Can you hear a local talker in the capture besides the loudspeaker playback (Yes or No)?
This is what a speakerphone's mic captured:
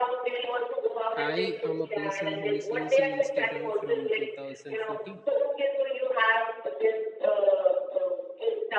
Yes